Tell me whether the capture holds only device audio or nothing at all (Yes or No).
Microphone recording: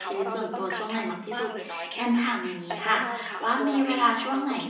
No